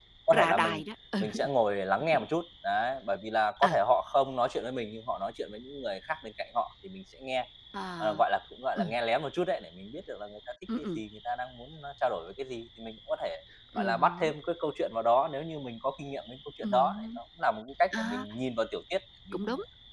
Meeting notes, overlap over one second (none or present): none